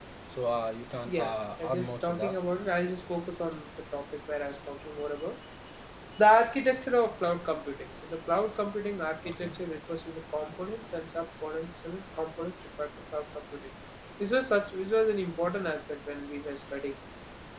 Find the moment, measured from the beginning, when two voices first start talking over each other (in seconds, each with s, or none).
1.1 s